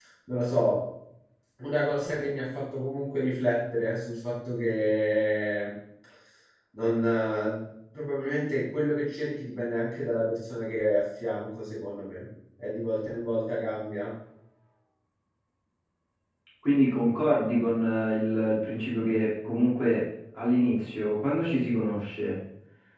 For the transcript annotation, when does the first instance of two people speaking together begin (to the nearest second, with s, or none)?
none